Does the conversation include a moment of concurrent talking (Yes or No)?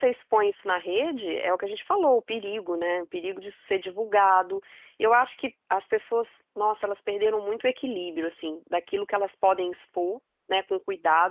No